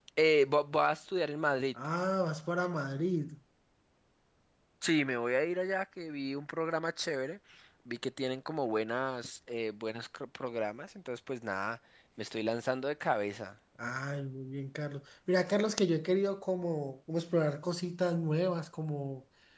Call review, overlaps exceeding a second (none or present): none